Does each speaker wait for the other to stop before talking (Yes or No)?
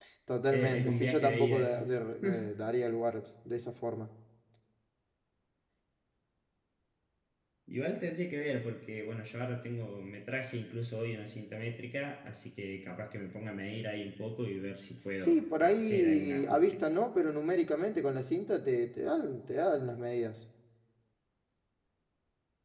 No